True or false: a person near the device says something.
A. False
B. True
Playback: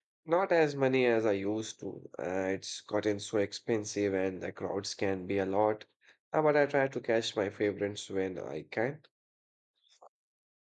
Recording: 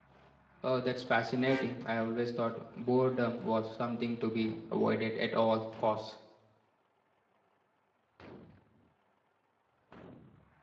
B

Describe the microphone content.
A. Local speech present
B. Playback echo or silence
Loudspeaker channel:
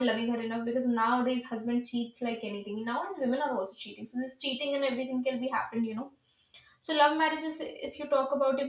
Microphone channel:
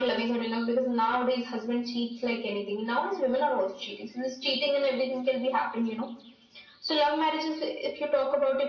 B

